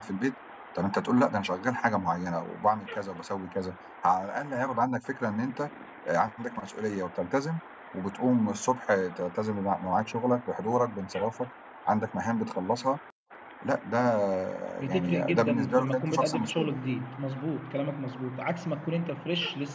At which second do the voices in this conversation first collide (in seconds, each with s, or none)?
14.9 s